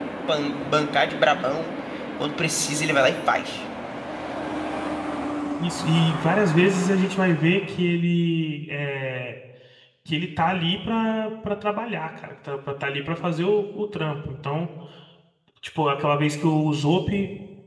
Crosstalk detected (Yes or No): No